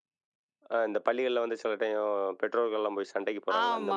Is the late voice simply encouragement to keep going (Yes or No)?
No